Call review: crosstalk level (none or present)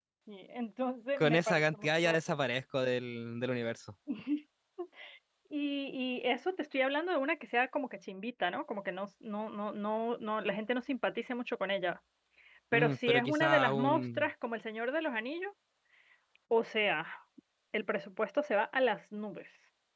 present